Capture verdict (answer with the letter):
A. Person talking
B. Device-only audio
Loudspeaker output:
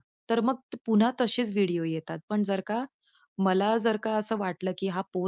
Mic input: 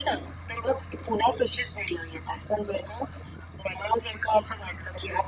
B